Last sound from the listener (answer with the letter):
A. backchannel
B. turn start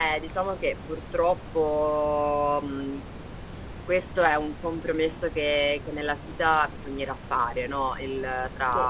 A